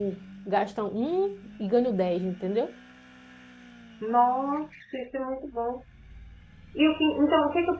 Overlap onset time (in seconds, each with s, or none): none